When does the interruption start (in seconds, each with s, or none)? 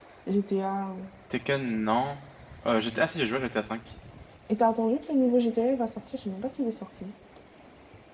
none